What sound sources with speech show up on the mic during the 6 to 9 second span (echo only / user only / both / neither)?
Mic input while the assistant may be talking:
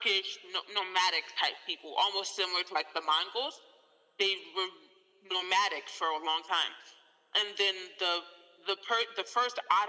echo only